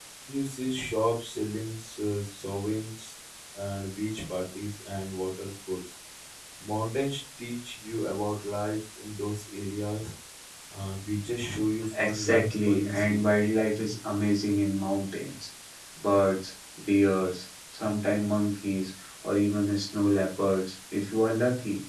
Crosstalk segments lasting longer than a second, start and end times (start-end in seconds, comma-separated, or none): 12.0-13.2